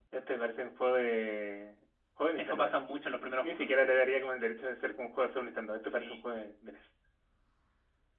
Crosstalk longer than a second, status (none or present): none